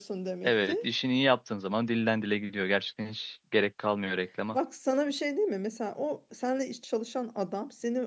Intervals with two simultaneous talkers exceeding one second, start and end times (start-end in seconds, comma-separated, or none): none